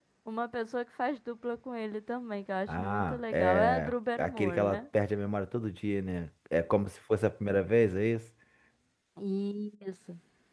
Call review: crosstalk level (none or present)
present